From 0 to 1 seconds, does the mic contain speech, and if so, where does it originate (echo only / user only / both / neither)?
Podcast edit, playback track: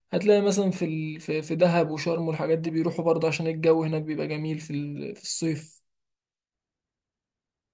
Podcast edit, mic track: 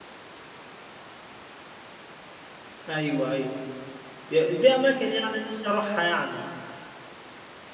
neither